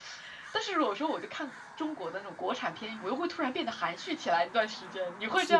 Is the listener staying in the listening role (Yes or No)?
No